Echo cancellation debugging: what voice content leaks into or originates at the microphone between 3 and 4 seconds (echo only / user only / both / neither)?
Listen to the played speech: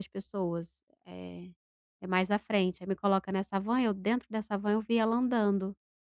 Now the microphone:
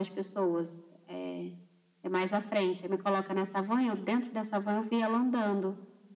echo only